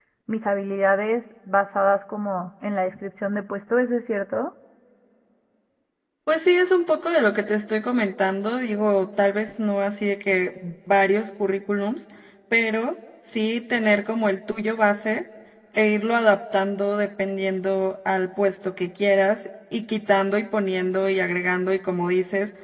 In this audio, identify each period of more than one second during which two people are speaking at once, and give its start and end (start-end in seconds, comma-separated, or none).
none